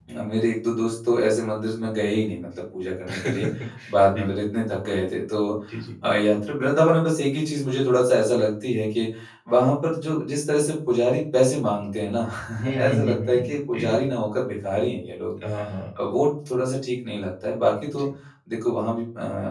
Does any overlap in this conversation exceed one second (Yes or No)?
Yes